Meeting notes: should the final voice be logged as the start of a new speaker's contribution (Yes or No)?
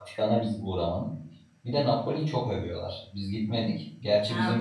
Yes